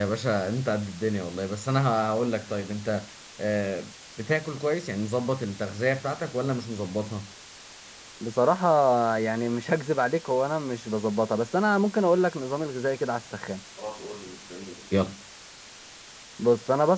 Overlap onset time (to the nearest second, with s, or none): none